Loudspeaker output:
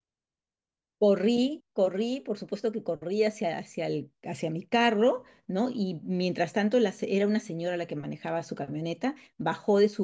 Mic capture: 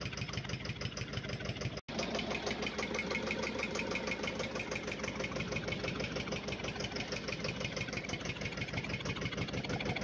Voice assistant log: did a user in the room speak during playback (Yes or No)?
No